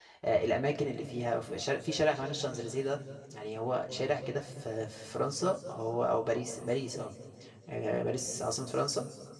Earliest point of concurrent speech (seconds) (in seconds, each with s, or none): none